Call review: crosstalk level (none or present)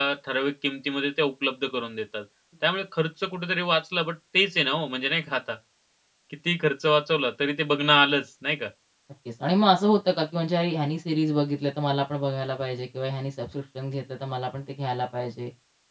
none